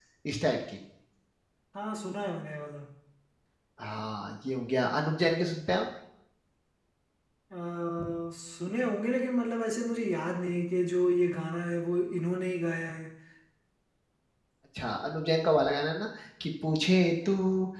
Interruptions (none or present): none